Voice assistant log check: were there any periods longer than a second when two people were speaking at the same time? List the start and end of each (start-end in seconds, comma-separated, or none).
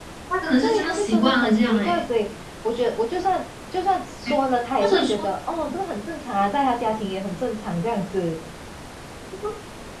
0.6-2.0